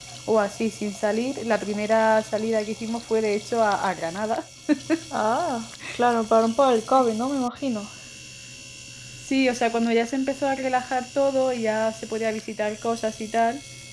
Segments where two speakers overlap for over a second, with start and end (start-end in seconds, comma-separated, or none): none